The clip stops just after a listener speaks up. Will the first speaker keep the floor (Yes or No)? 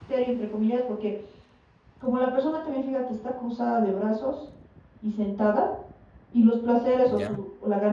Yes